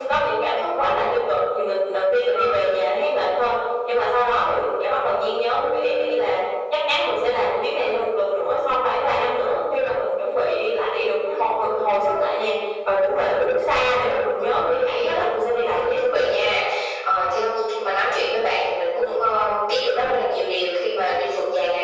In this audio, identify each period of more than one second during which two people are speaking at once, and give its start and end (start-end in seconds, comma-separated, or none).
14.8-16.0